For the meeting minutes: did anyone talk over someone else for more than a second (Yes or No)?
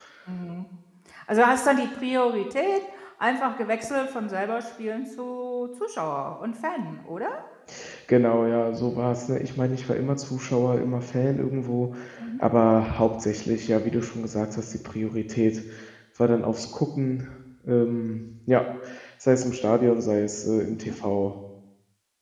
No